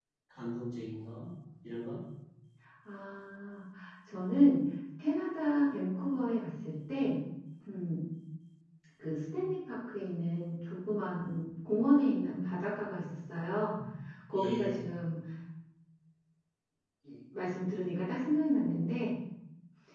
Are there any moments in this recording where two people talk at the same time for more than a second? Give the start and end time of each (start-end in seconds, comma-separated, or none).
none